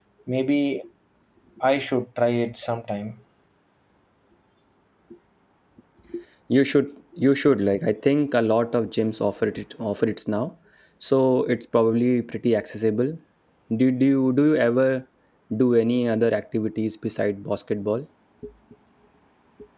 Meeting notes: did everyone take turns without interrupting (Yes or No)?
Yes